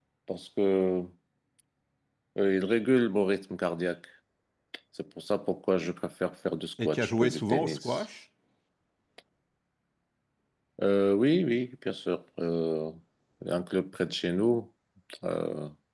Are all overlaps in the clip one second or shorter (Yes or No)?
No